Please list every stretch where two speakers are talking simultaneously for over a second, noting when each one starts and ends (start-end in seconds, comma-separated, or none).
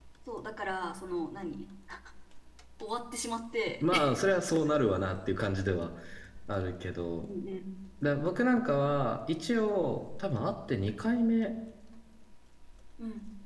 none